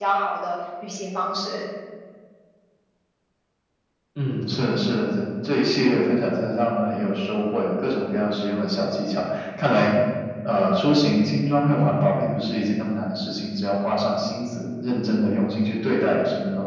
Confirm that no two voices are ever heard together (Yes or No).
Yes